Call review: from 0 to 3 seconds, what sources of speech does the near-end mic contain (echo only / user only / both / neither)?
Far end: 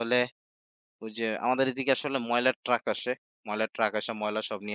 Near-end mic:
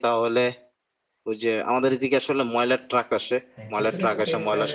echo only